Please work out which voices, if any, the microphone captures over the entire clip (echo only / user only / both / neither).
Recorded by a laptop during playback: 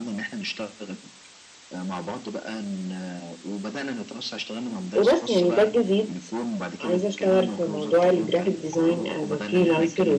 both